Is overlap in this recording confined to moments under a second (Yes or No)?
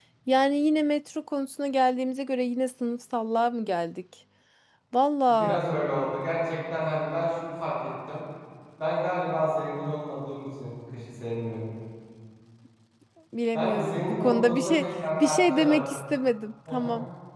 No